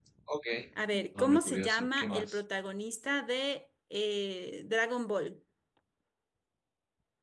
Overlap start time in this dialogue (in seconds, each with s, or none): 1.2 s